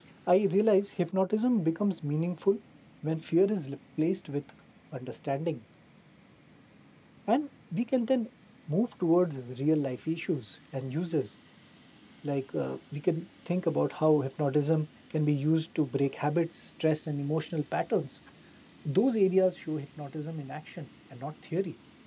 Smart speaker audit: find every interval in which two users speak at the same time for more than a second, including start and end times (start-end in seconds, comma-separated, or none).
none